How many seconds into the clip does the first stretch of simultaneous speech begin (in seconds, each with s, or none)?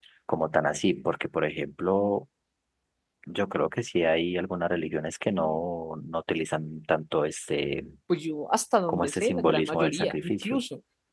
8.9 s